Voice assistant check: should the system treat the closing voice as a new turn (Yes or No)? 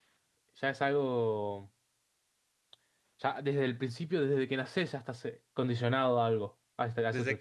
Yes